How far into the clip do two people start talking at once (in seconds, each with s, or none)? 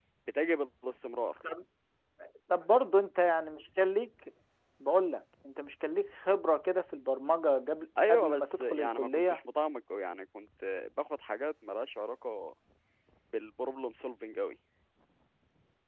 8.0 s